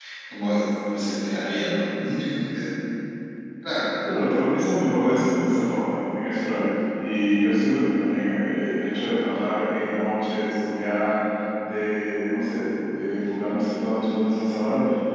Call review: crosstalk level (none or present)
none